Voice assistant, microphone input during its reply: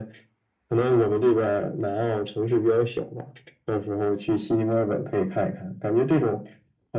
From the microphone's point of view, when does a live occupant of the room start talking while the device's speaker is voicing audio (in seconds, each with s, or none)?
none